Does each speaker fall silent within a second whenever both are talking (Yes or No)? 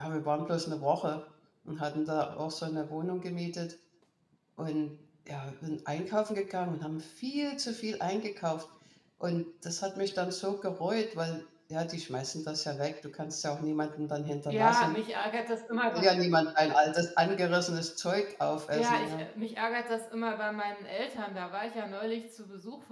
Yes